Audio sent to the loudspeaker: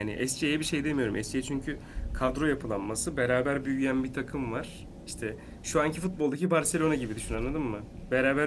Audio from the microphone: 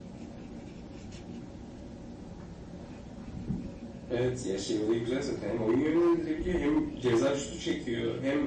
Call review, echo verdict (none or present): none